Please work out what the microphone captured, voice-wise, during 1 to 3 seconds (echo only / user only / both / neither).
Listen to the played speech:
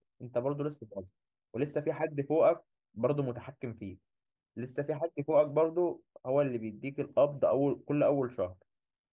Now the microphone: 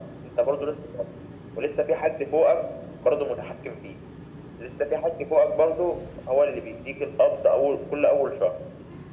echo only